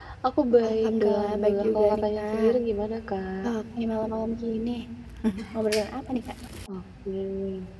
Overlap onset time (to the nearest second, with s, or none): 1 s